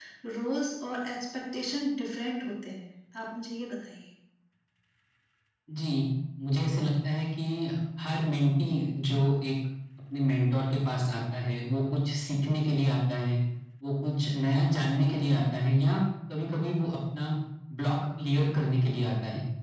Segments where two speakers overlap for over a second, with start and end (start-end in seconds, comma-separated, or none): none